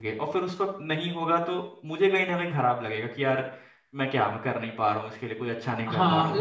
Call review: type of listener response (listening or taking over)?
taking over